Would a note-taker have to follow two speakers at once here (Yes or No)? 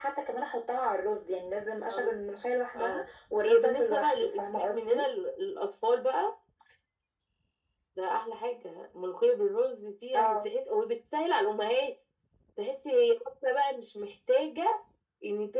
Yes